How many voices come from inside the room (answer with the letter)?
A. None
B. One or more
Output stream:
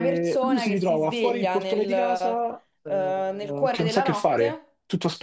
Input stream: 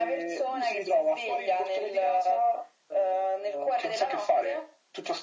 A